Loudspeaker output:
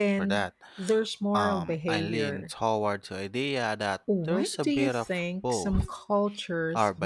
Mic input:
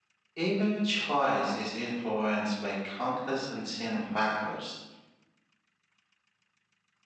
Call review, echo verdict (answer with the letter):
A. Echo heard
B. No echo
B